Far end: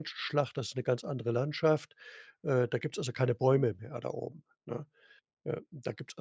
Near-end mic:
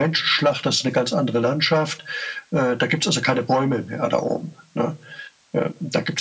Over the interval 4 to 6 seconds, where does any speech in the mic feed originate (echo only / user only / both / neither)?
echo only